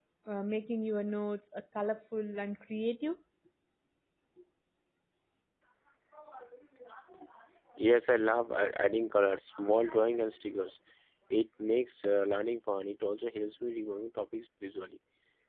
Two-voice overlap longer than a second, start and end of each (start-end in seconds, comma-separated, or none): none